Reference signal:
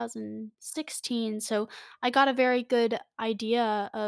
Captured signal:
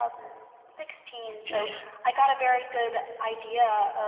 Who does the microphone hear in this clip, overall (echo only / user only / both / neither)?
both